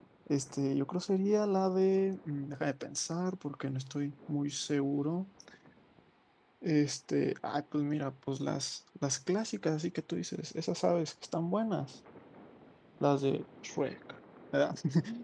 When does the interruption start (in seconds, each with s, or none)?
none